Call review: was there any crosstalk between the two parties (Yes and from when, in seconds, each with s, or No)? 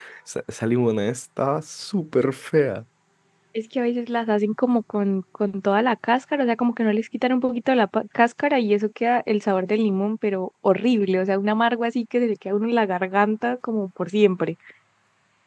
No